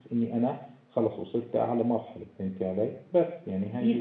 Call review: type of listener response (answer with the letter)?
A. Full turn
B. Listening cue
A